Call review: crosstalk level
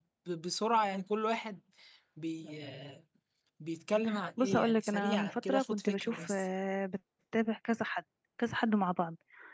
present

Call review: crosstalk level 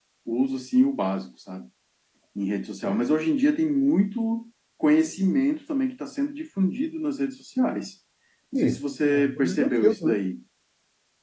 present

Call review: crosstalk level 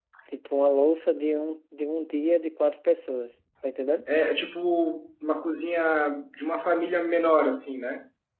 none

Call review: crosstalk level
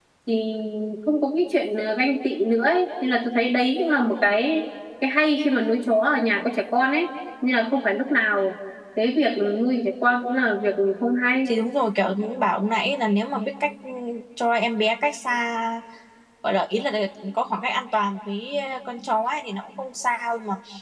none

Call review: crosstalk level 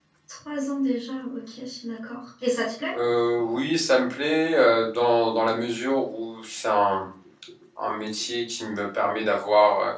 none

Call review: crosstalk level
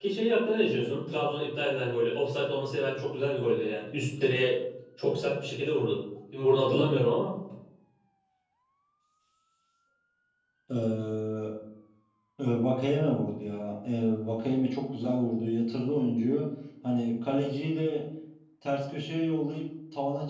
none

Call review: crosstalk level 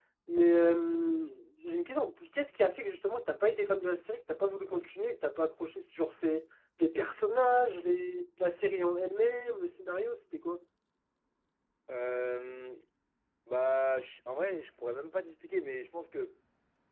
none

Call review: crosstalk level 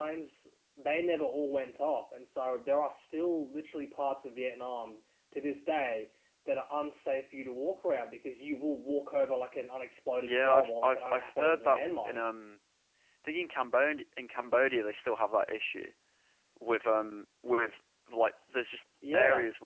present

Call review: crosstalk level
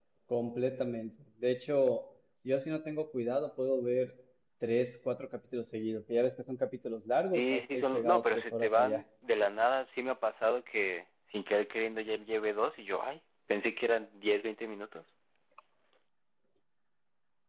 present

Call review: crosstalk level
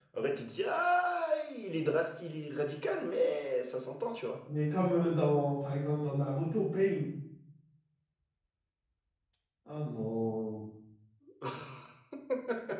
none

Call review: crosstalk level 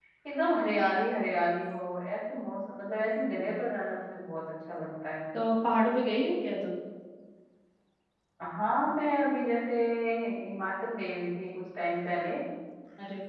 none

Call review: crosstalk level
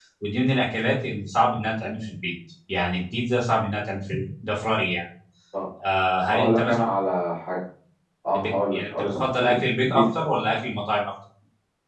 present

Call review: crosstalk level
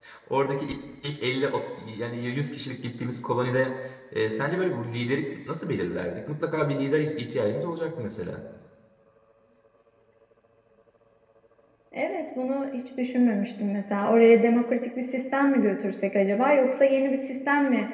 none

